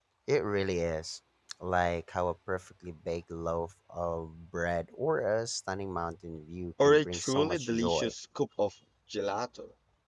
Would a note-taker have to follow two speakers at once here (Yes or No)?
Yes